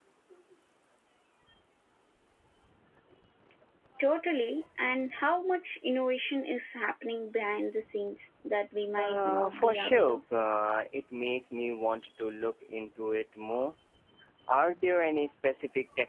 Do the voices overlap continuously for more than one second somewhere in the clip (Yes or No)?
Yes